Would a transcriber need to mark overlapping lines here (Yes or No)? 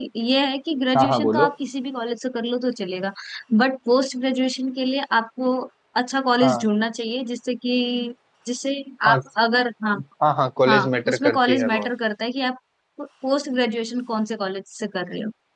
Yes